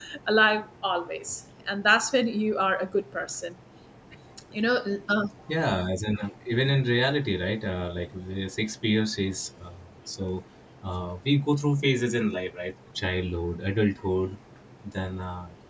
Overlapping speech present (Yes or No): No